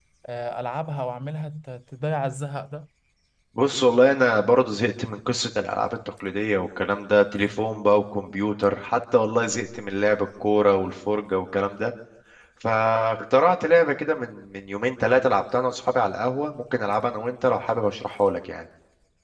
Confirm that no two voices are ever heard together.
Yes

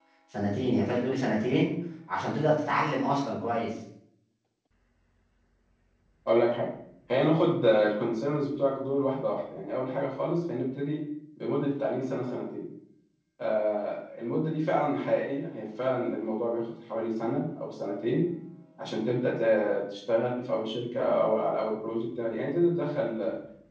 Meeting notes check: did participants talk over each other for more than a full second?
No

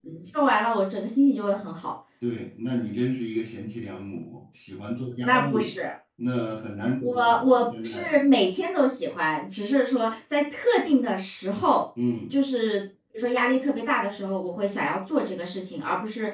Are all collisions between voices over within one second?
Yes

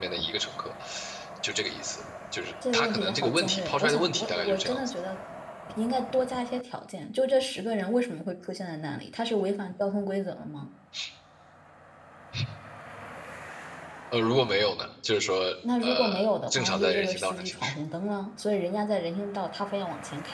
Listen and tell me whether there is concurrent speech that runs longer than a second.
Yes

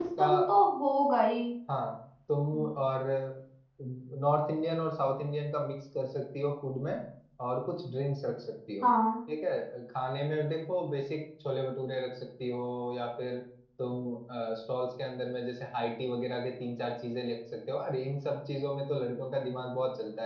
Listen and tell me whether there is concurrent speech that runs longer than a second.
No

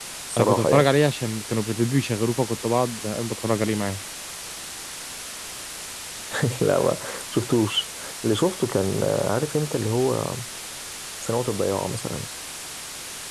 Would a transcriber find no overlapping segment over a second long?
Yes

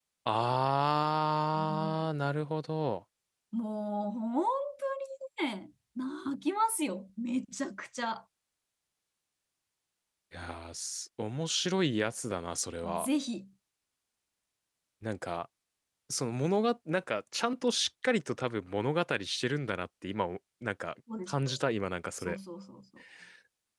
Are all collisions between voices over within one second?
Yes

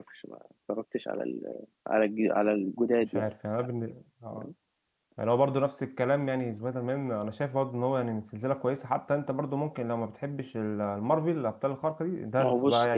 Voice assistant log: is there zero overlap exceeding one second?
Yes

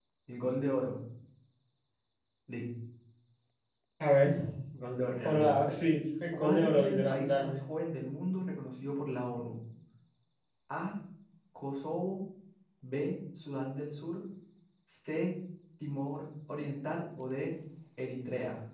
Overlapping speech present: Yes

